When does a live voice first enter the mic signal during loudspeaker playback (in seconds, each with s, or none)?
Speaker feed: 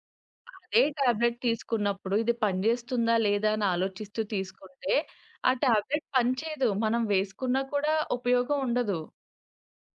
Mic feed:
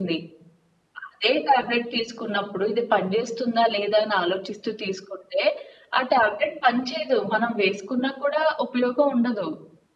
none